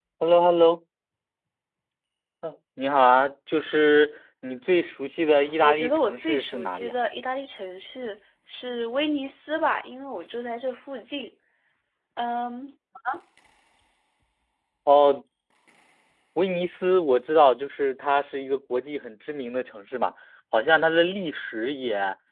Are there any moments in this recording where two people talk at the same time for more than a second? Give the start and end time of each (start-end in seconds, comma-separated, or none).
5.6-6.9